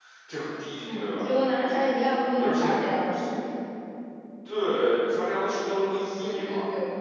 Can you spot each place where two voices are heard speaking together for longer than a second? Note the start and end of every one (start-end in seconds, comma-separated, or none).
none